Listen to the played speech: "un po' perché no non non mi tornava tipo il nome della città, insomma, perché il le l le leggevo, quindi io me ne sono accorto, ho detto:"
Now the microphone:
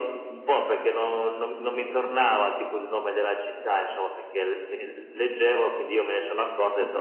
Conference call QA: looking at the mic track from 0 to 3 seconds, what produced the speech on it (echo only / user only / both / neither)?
echo only